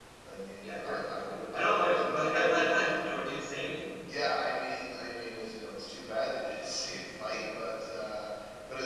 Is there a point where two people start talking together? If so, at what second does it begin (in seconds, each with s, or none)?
0.6 s